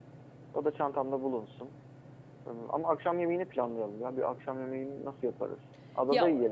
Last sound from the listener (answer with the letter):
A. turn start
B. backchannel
A